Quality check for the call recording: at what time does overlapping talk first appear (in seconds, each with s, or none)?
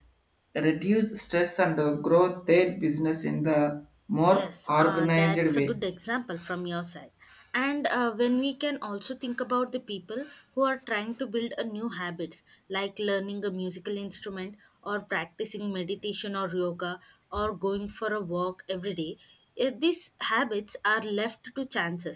4.2 s